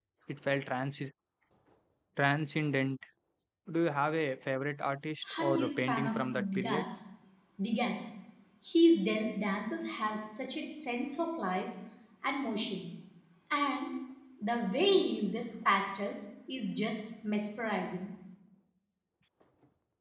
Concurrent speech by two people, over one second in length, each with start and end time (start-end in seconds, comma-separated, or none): 5.4-6.8